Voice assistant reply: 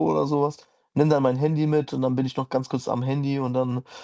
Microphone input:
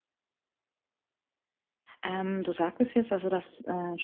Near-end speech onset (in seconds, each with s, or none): 2.0 s